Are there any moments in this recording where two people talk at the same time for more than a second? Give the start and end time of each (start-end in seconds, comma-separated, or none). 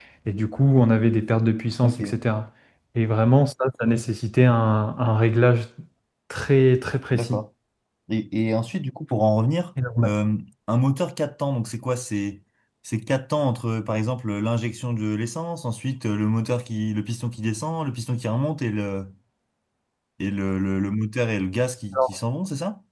none